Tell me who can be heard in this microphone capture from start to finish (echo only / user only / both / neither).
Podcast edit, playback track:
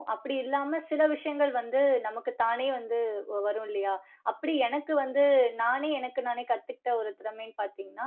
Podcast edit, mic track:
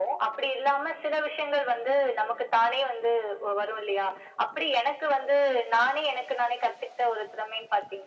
echo only